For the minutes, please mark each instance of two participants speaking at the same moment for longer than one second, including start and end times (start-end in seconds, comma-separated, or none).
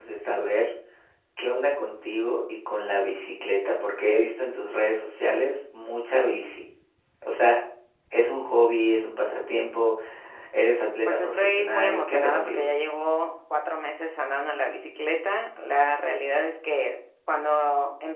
11.1-12.7